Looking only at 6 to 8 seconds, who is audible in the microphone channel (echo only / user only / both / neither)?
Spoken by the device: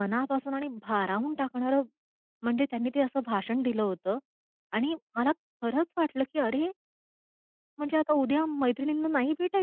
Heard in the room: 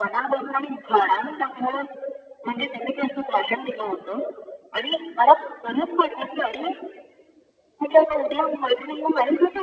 echo only